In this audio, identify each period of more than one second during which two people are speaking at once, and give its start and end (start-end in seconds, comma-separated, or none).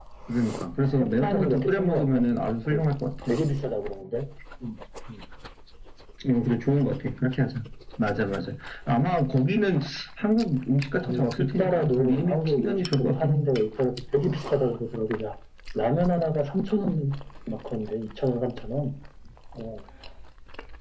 0.8-2.2, 11.0-13.4